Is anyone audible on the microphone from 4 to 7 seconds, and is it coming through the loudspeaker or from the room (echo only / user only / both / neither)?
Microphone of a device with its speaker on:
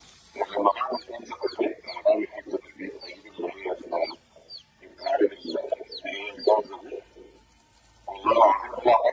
echo only